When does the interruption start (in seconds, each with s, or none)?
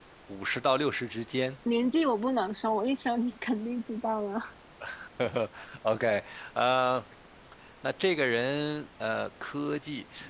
none